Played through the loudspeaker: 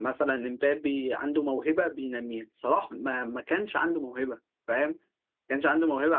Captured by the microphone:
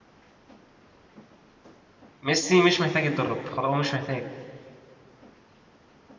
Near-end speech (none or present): present